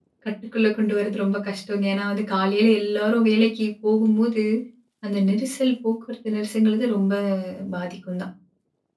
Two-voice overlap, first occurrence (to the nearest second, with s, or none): none